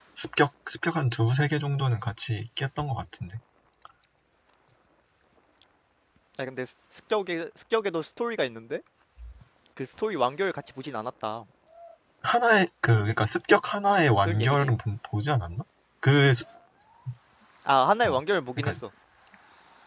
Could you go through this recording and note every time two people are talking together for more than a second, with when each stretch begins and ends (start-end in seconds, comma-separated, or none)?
none